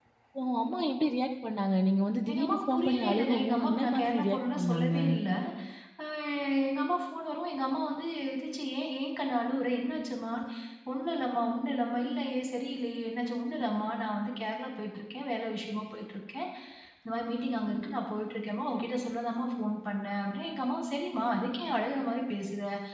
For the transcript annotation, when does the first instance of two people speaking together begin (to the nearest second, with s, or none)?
2 s